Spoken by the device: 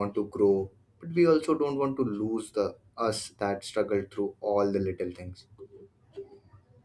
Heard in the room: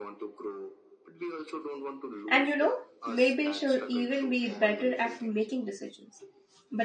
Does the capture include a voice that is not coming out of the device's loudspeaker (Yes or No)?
Yes